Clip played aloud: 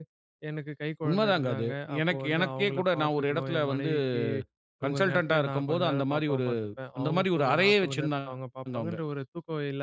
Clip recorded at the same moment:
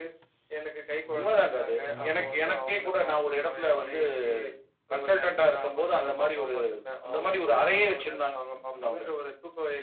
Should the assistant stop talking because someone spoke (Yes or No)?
Yes